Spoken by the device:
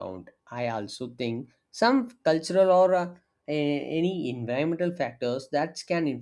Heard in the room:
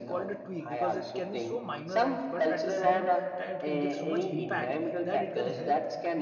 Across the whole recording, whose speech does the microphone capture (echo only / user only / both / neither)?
both